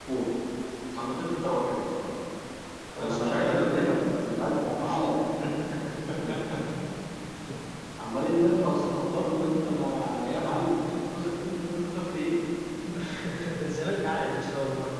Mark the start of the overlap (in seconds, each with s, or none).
3.0 s